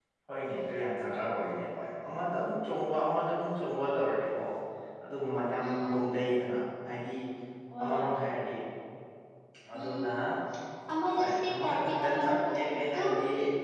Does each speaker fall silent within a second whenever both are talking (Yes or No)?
No